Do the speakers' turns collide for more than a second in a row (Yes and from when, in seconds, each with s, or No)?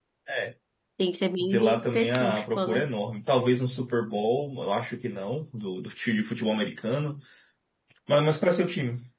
Yes, from 1.4 s